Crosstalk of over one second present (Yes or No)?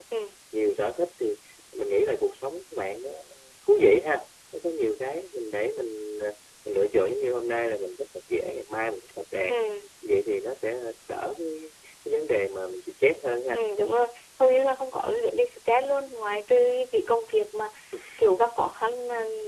No